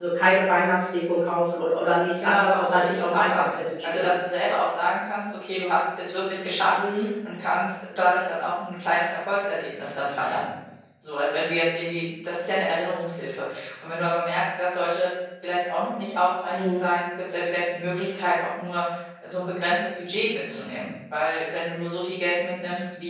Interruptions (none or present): present